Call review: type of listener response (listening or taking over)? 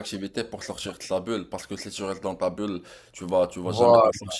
listening